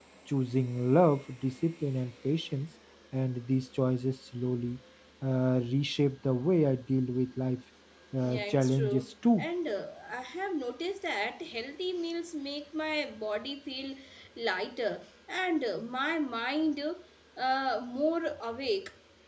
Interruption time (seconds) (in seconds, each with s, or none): 8.2 s